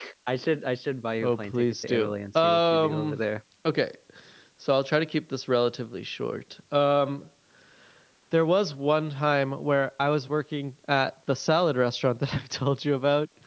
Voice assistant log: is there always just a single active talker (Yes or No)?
No